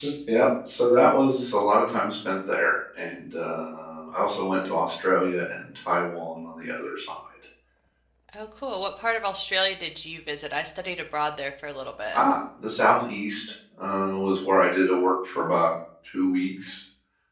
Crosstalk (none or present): none